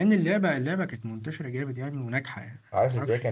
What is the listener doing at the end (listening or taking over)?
taking over